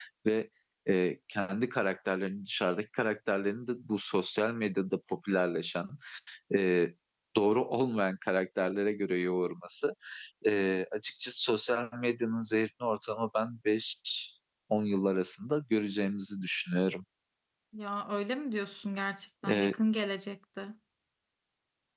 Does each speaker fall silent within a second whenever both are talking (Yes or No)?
Yes